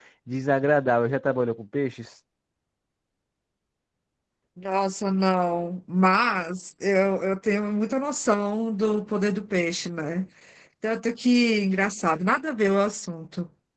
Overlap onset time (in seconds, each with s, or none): none